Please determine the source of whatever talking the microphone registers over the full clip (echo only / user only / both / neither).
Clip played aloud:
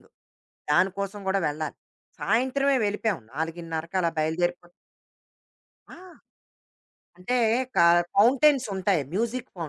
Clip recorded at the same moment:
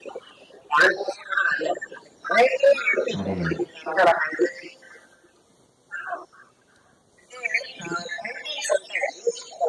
both